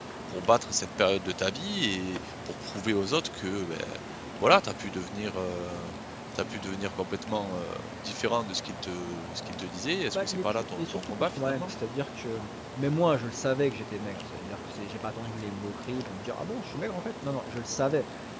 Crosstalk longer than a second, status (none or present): present